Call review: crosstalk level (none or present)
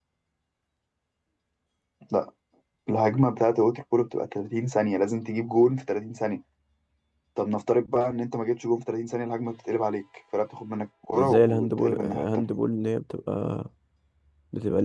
present